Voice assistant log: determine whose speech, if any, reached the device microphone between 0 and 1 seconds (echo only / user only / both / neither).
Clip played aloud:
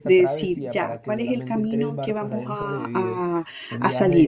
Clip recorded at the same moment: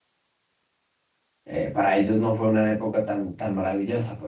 neither